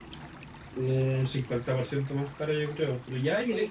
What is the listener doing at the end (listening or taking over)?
listening